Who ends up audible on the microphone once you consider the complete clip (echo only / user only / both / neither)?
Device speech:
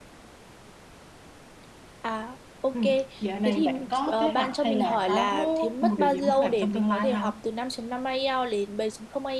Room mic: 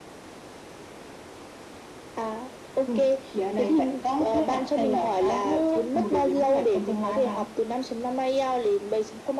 echo only